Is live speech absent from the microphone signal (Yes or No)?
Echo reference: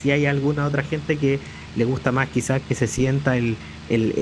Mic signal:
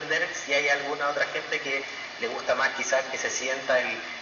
Yes